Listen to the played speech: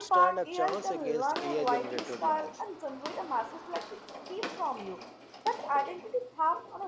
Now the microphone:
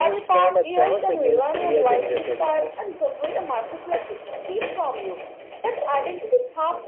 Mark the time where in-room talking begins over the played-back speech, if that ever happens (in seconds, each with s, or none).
none